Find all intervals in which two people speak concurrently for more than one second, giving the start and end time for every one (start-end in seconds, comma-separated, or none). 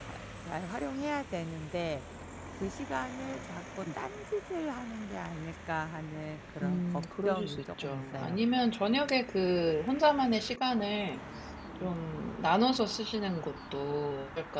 6.6-8.4